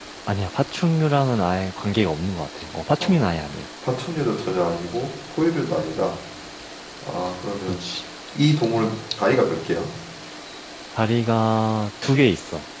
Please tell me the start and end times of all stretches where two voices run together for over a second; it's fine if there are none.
none

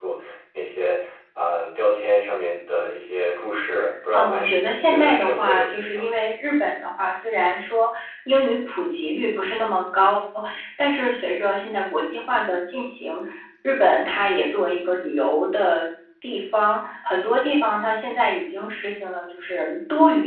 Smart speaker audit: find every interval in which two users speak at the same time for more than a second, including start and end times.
4.1-6.1

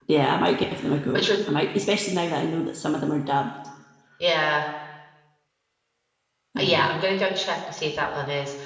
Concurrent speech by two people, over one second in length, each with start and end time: none

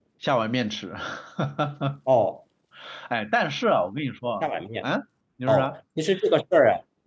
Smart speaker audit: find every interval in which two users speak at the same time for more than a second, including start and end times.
none

